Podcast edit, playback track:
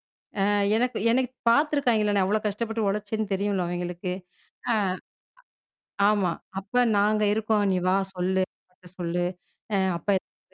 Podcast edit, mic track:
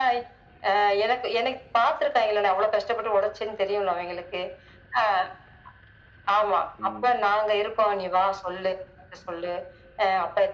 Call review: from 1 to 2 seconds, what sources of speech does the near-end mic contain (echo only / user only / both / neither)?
echo only